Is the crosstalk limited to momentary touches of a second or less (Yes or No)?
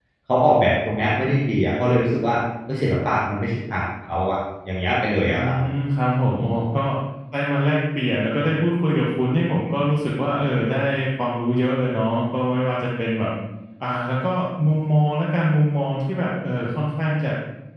Yes